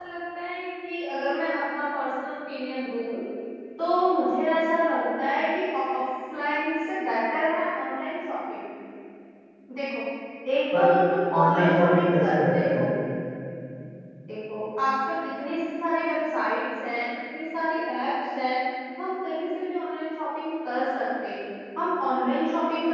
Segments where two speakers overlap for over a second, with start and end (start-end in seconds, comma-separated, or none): 11.4-12.9